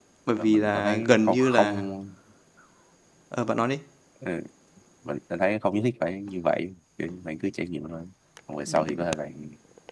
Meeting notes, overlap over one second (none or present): present